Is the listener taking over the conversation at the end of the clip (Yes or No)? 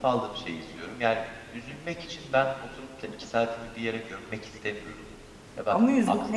Yes